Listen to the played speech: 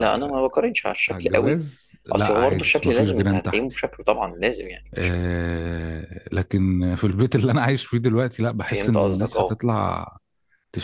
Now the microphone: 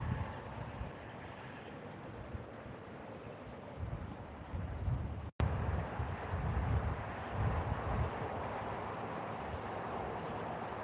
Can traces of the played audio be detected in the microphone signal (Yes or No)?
No